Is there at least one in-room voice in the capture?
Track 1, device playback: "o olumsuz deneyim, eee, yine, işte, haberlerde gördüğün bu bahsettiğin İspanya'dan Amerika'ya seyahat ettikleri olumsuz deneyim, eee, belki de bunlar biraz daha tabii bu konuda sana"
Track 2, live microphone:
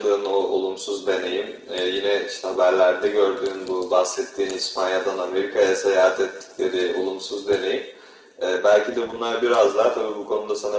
No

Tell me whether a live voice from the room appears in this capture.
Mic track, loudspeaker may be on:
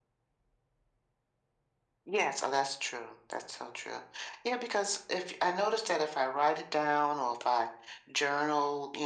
No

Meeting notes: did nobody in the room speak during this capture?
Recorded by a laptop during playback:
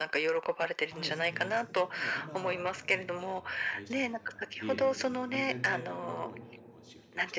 No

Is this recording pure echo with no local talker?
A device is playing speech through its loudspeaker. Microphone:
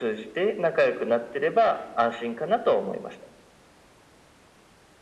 Yes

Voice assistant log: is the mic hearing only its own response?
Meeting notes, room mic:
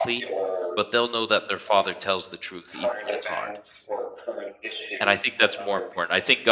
No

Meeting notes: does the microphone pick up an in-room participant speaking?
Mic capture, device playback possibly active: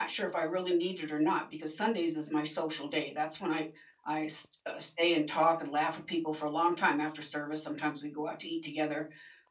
Yes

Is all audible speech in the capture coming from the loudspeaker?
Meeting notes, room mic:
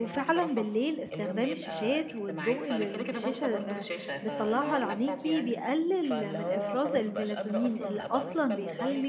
No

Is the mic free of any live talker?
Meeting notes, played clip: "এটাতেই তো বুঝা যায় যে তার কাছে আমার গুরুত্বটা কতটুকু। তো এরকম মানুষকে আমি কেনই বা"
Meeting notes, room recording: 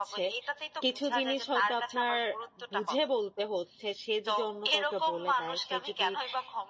No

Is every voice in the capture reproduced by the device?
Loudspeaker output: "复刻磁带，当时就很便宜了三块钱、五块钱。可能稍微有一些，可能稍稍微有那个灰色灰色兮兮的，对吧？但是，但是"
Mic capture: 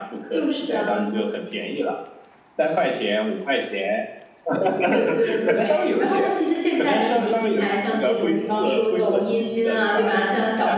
No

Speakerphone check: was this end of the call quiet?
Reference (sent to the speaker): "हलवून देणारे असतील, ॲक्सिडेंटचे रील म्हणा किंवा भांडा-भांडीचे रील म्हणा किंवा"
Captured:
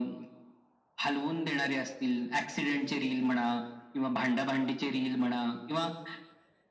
Yes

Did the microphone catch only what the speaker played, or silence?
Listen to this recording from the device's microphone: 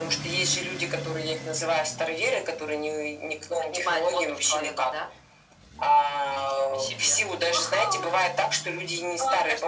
Yes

